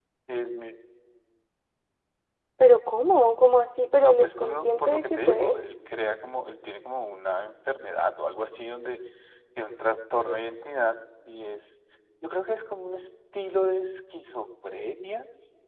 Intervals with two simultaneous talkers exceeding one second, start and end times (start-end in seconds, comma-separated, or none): 3.9-5.5